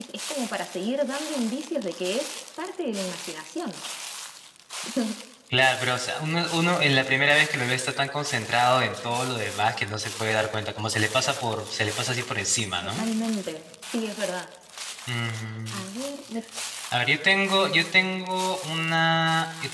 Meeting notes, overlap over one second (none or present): none